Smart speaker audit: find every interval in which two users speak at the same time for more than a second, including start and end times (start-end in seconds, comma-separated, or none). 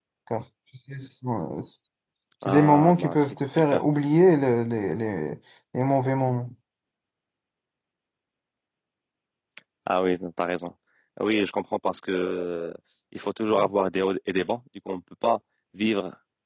2.5-3.8